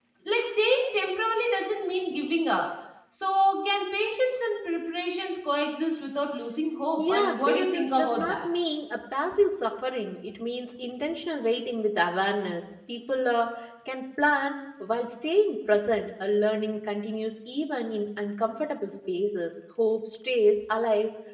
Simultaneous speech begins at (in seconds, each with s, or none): 7.0 s